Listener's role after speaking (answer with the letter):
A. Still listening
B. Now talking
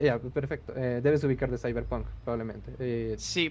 B